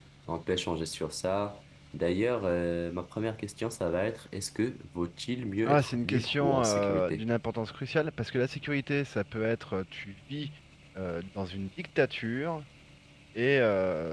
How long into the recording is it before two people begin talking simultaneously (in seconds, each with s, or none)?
5.6 s